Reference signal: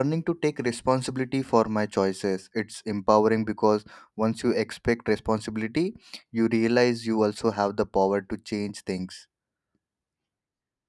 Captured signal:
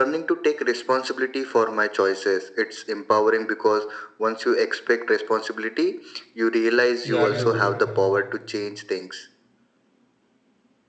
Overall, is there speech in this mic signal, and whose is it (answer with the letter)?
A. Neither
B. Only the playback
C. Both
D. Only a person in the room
C